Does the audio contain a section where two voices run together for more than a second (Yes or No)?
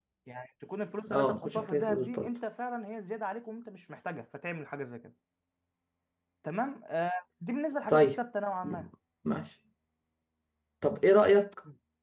Yes